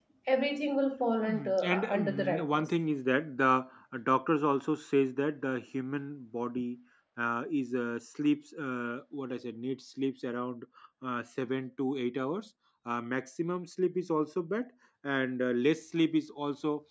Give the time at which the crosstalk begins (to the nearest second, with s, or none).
1 s